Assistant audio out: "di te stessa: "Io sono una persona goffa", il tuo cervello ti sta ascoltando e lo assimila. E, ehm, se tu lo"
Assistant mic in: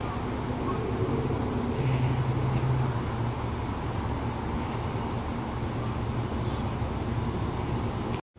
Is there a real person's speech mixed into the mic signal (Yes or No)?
No